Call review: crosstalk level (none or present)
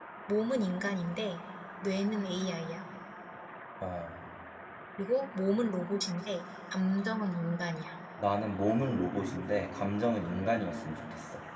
none